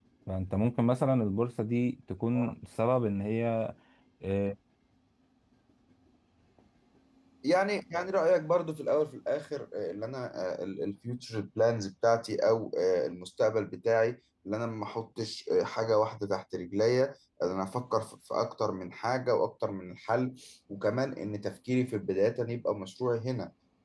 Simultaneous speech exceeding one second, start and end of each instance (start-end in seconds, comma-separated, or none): none